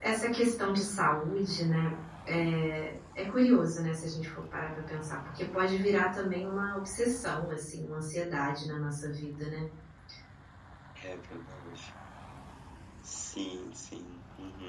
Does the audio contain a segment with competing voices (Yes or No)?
No